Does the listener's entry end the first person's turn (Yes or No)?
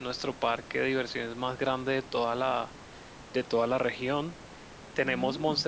No